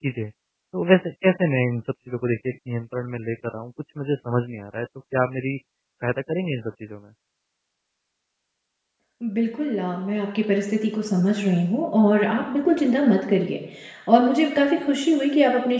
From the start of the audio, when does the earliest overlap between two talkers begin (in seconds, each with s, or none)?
none